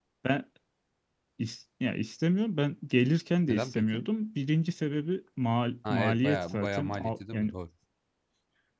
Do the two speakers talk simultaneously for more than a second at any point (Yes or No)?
Yes